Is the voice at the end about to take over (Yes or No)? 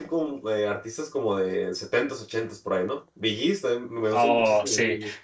Yes